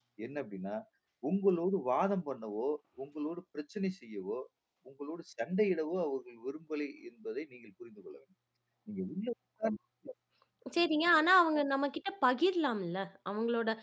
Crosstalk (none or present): none